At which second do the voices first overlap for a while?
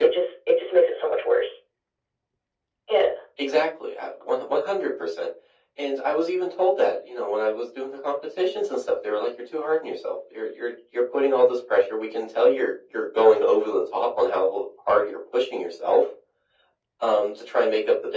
none

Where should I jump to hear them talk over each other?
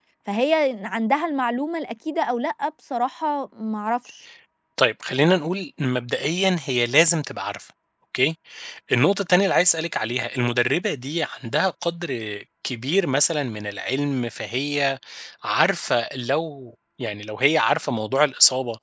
none

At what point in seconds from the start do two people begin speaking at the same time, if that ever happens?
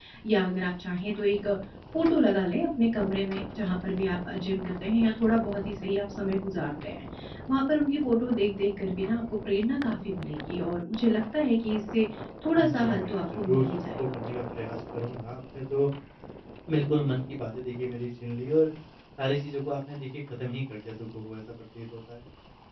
12.5 s

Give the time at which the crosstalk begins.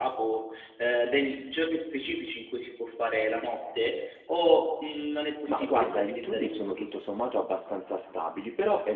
5.5 s

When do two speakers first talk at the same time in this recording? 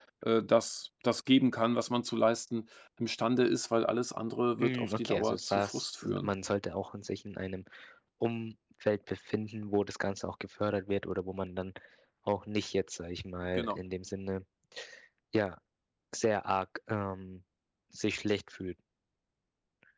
4.6 s

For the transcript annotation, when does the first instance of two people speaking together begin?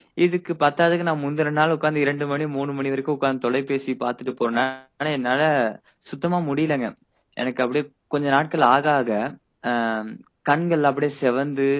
none

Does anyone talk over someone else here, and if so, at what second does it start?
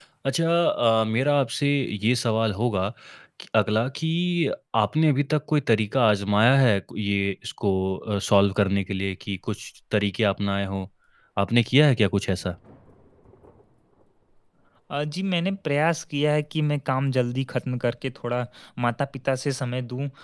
none

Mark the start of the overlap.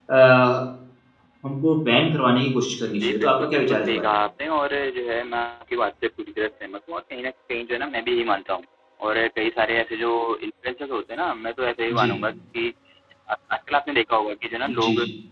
2.8 s

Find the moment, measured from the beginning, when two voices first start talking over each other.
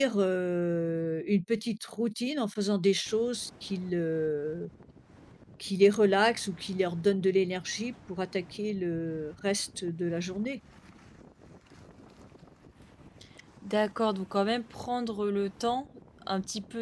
none

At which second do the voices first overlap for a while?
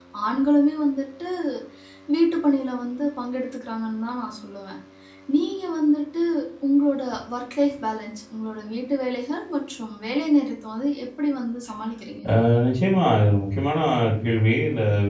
none

